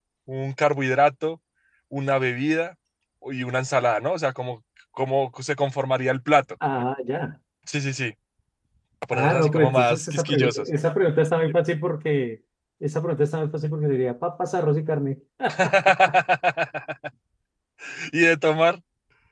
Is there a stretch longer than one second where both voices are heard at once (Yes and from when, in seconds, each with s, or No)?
Yes, from 9.1 s